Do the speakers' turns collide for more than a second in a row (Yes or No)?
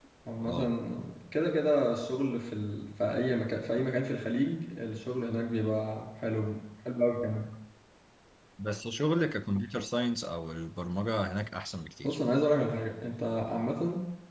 No